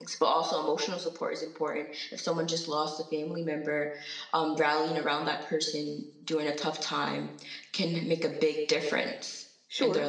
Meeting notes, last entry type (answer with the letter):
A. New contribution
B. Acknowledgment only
A